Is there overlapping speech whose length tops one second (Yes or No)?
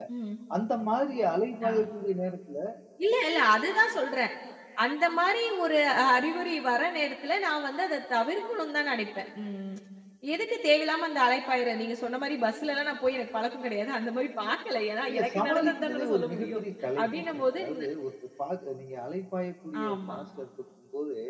Yes